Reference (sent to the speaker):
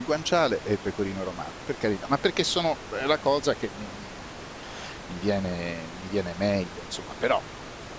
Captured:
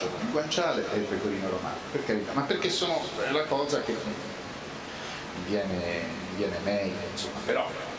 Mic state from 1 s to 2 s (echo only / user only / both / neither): echo only